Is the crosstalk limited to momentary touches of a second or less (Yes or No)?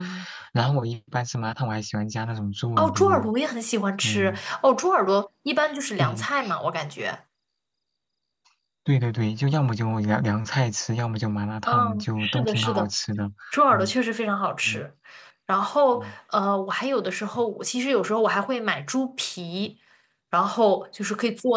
No